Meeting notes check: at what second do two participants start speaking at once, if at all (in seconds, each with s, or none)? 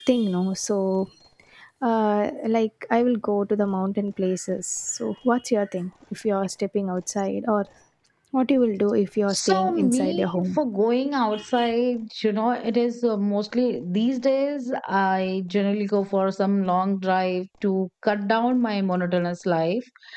9.3 s